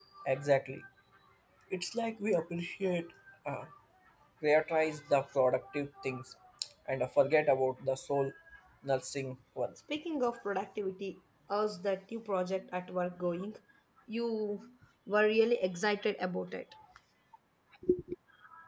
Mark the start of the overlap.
none

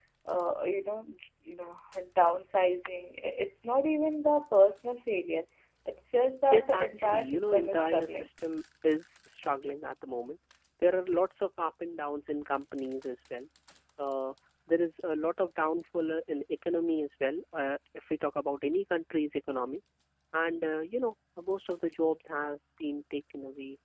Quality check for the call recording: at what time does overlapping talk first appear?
7 s

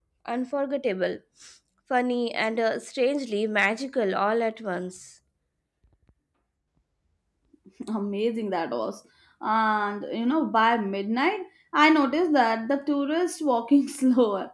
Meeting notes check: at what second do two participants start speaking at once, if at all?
none

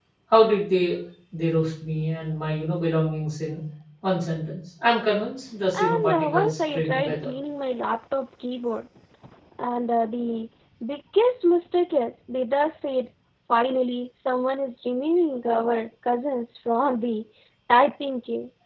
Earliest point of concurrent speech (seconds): 6 s

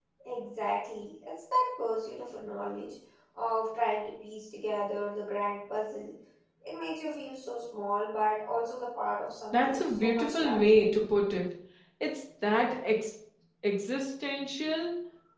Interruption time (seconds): 10 s

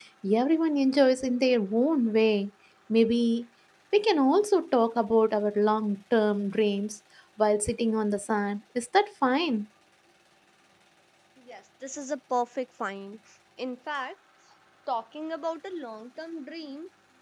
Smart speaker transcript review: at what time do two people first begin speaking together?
none

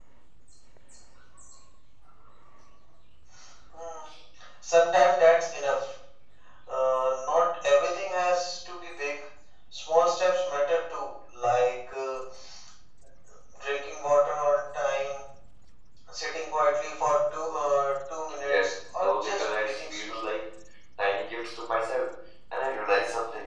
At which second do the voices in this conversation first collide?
18 s

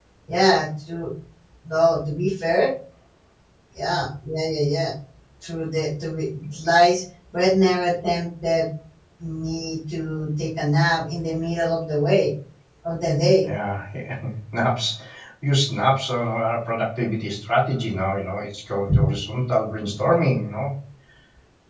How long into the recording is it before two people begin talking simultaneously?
none

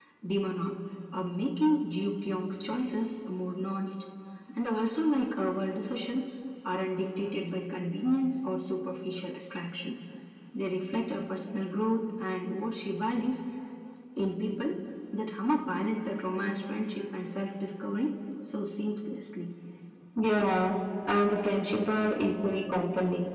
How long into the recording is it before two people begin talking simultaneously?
none

